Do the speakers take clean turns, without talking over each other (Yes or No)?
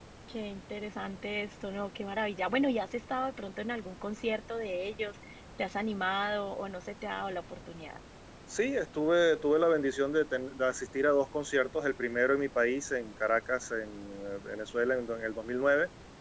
Yes